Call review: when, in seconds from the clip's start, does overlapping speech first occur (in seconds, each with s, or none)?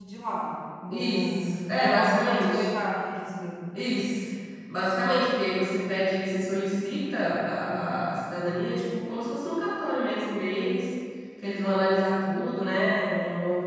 0.9 s